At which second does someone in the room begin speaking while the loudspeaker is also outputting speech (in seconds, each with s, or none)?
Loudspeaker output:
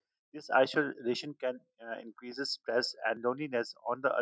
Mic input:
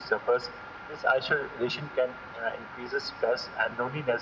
none